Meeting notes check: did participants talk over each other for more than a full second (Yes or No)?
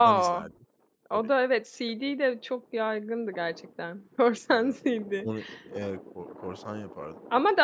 No